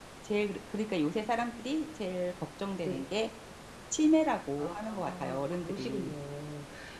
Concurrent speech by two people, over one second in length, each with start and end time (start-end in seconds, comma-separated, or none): 4.6-6.1